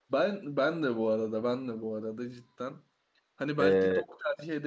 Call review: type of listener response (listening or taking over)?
listening